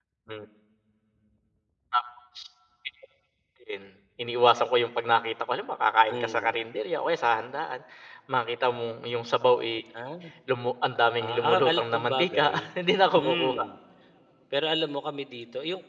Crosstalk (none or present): present